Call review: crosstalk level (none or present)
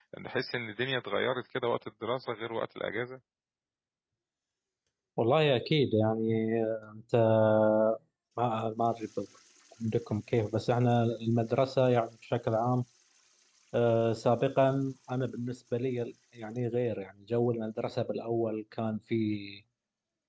none